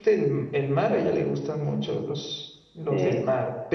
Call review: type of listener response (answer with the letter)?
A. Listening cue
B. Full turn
A